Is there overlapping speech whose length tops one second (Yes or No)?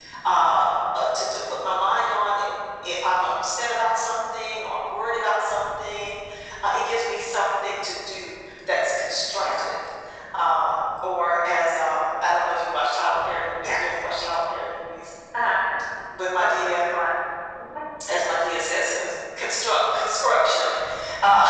No